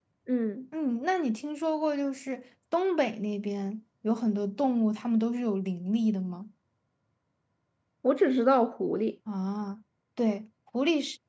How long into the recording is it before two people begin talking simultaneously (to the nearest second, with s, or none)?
none